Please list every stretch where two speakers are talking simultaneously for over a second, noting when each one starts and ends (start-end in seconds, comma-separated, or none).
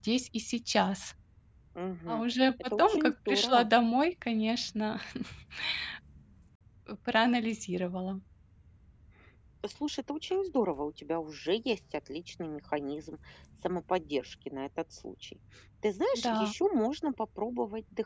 2.1-3.7